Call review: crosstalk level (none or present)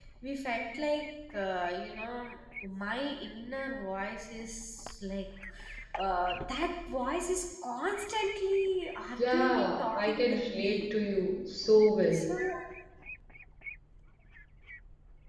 present